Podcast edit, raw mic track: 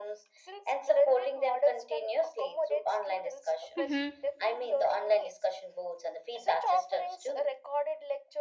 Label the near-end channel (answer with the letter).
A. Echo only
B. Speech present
B